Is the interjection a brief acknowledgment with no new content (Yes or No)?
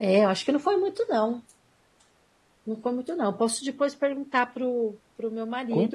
No